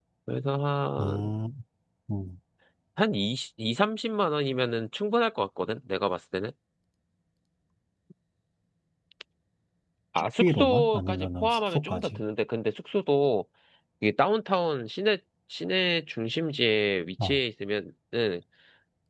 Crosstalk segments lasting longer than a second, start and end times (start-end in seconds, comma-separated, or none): 10.4-12.2